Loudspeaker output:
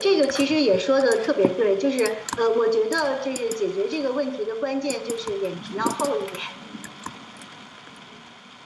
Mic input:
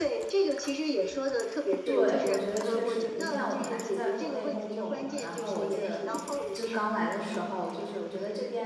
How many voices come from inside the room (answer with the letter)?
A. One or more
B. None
A